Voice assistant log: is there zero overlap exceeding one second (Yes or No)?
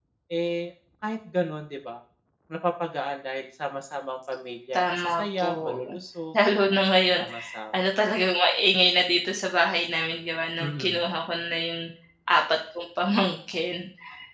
No